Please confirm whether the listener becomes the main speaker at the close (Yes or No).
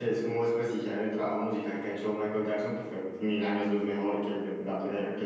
Yes